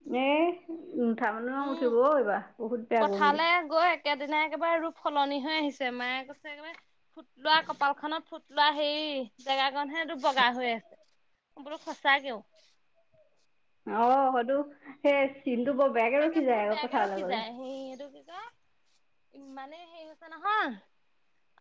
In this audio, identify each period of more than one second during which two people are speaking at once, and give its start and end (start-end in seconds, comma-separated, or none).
16.2-17.4